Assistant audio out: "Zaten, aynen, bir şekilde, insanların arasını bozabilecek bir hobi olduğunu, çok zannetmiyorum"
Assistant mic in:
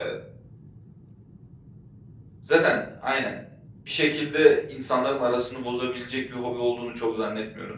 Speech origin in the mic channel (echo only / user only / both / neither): echo only